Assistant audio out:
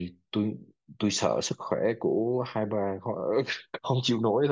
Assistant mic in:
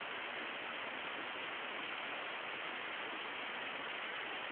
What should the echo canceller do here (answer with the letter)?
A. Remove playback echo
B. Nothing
B